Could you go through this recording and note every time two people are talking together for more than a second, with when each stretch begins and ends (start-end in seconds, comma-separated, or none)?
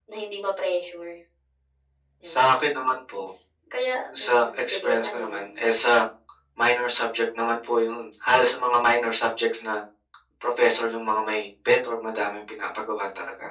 4.2-5.5